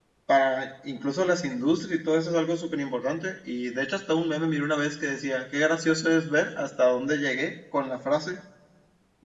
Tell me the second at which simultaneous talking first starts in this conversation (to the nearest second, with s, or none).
none